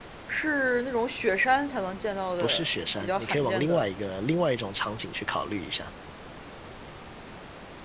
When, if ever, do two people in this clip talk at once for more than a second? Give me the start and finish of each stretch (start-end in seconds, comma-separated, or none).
2.4-3.9